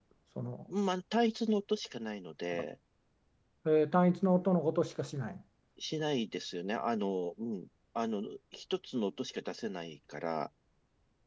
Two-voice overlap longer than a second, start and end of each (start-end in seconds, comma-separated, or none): none